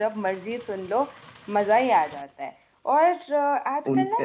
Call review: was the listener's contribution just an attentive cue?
Yes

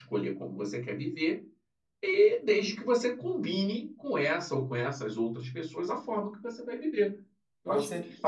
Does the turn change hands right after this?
Yes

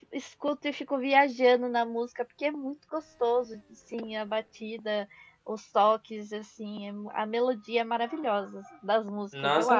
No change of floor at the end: No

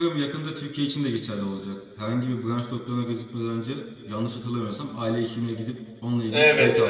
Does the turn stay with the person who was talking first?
No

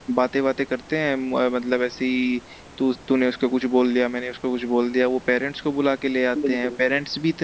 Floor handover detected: No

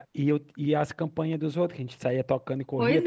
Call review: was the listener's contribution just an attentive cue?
No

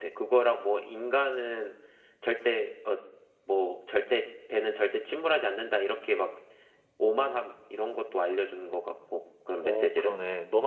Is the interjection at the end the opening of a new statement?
Yes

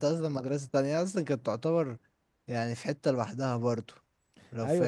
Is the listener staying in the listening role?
No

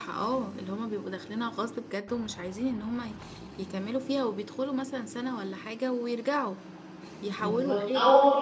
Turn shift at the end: Yes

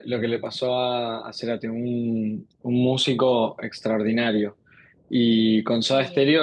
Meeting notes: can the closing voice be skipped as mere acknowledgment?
Yes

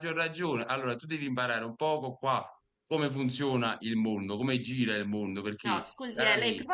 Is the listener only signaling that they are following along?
No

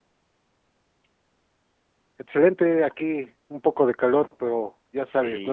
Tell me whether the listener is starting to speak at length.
Yes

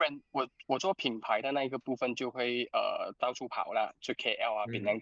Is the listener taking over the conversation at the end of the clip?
Yes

